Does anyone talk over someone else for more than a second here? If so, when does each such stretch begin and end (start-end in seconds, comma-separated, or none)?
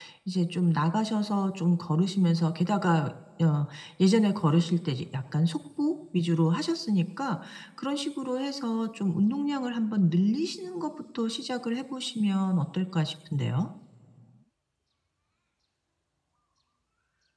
none